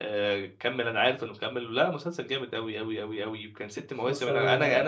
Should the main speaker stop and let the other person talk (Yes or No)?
No